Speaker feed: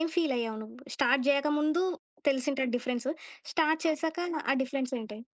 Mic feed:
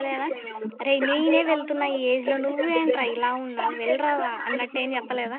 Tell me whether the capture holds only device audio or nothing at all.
No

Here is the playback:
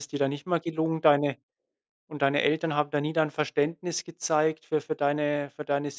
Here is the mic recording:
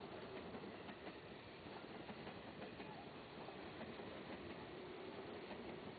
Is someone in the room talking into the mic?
No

